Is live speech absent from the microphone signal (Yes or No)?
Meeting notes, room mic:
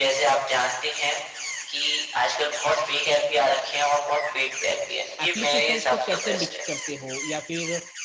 No